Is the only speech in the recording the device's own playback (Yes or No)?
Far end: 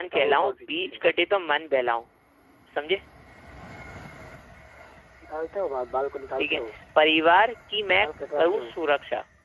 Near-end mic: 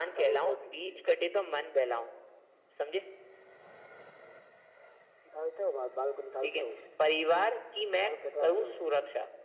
Yes